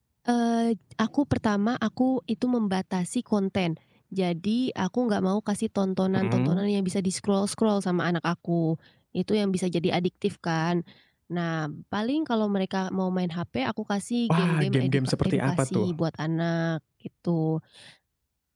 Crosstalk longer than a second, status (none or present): present